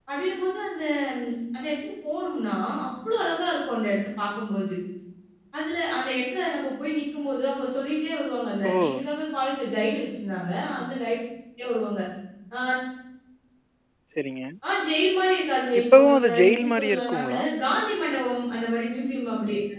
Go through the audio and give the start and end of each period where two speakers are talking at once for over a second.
15.8-17.4

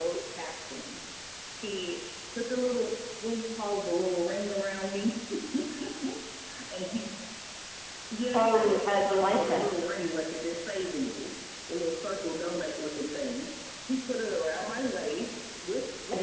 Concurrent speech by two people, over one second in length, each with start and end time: 8.3-9.9

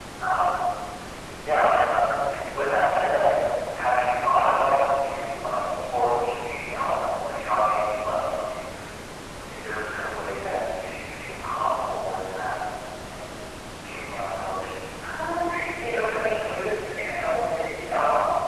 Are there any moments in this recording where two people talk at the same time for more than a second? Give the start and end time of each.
none

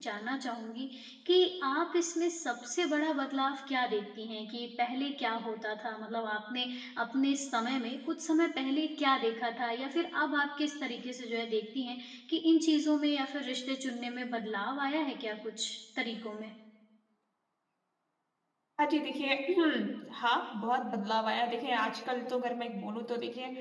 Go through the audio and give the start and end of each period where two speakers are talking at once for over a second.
none

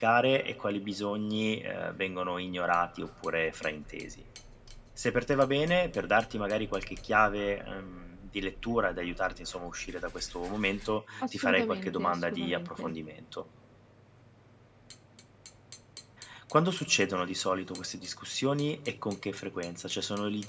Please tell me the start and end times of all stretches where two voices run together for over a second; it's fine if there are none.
11.3-12.9

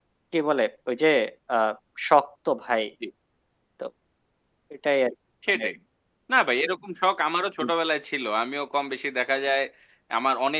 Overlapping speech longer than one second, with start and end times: none

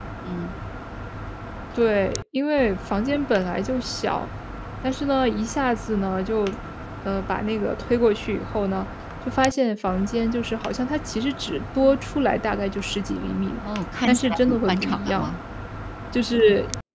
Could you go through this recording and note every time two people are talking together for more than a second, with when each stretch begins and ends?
14.1-15.3

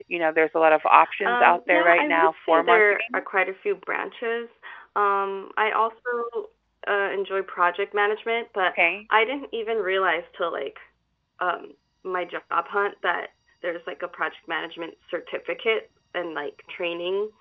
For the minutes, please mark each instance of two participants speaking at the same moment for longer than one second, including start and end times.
1.2-3.2

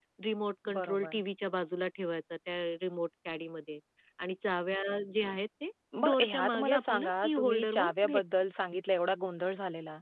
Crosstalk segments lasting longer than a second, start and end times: 6.0-8.2

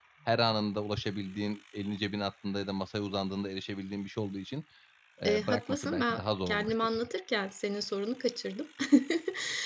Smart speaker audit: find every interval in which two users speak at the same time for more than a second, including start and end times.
5.2-6.9

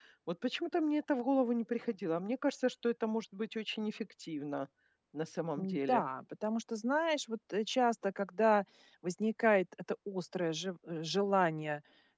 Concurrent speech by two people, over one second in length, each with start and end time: none

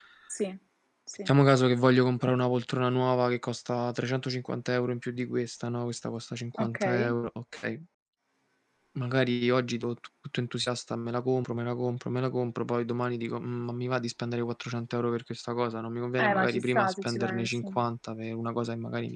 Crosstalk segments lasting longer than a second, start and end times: 16.2-17.6

